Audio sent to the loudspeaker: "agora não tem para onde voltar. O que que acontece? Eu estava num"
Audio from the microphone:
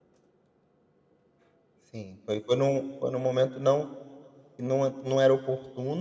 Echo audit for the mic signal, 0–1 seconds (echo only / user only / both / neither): neither